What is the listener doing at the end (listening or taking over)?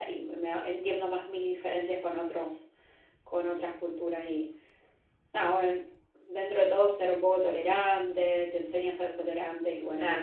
taking over